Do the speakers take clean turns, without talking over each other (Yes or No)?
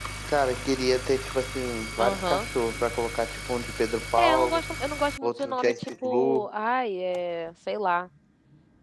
No